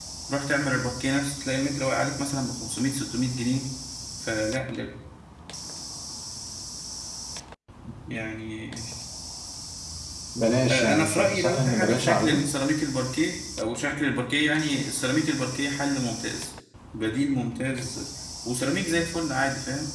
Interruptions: present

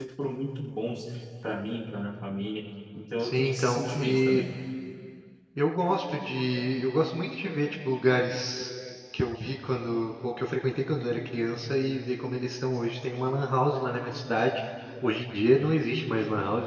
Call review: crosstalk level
present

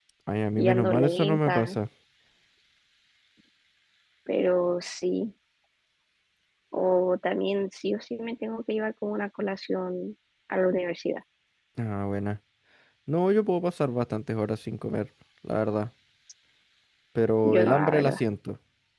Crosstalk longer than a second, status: present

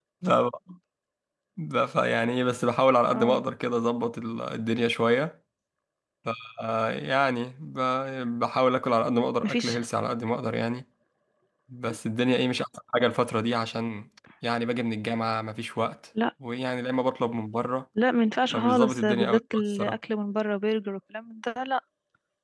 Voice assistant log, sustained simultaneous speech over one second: present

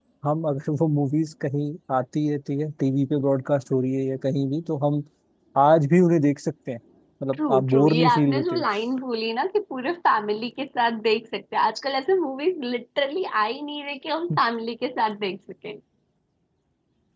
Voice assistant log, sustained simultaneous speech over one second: present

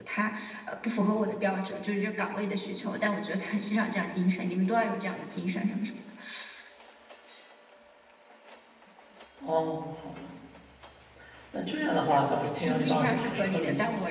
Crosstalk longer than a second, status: present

